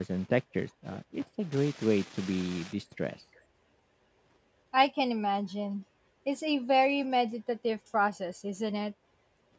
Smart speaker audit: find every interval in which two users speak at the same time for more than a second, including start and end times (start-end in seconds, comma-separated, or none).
none